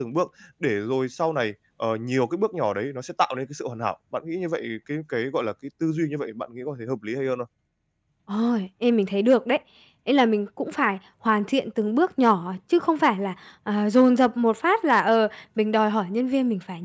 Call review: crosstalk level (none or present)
none